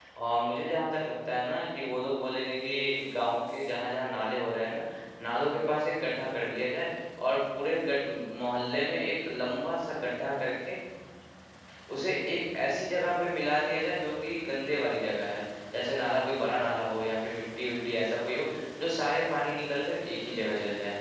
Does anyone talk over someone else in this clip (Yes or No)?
No